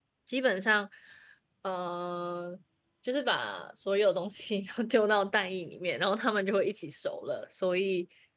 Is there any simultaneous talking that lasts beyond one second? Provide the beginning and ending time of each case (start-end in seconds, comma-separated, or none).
none